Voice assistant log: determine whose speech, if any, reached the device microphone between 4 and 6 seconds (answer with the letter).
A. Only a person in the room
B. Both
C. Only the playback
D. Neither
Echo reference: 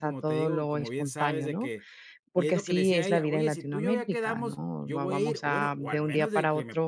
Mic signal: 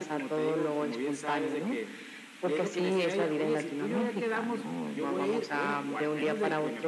C